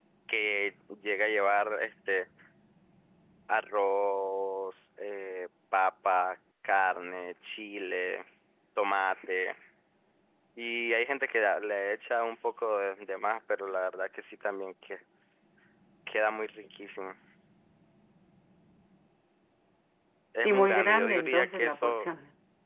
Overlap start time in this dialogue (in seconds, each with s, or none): 20.4 s